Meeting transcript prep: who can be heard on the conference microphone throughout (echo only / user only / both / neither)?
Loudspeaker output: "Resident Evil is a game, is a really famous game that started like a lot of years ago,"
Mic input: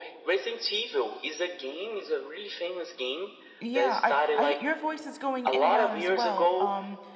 both